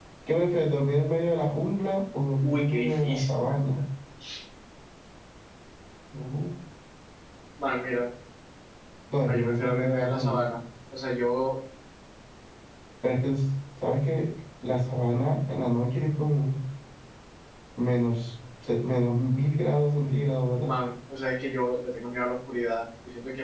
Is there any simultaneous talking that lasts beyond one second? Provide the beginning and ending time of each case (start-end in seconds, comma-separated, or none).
2.4-3.6, 9.2-10.5